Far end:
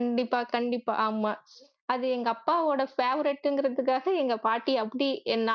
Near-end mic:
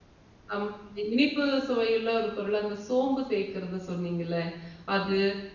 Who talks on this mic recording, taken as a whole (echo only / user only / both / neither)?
user only